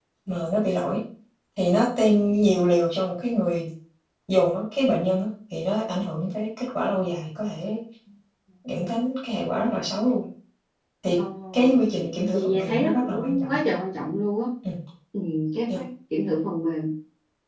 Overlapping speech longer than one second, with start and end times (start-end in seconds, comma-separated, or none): 12.0-13.6